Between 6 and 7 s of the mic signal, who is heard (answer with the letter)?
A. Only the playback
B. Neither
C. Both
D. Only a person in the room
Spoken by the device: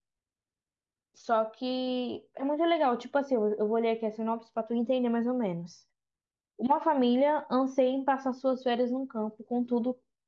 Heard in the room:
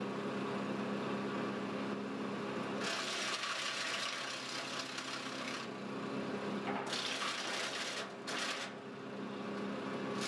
B